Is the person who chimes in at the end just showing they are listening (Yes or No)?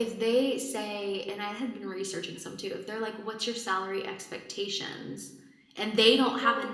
No